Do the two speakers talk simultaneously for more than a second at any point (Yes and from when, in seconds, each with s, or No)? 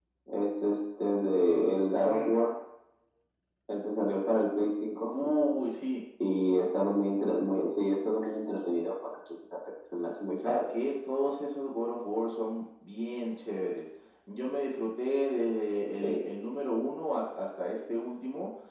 No